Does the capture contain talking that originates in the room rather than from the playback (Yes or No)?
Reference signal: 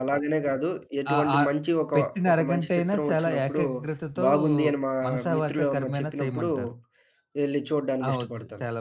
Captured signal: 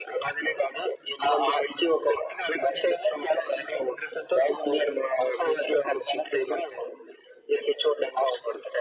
No